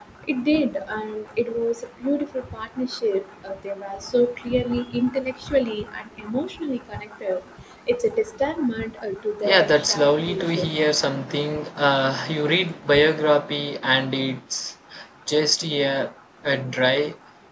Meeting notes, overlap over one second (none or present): present